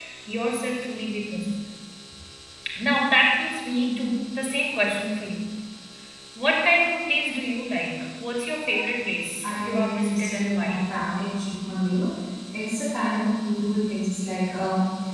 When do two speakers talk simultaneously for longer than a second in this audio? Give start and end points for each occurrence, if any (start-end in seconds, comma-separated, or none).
9.4-10.8